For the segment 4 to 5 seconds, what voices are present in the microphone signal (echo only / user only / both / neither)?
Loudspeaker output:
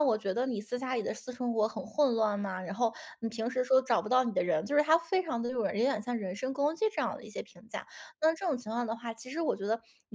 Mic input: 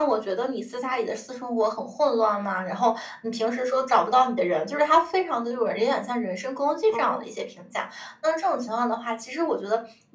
echo only